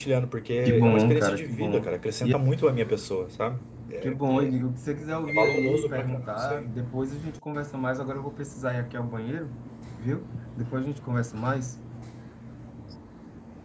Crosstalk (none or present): present